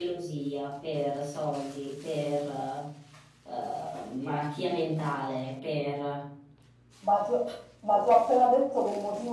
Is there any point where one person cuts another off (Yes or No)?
No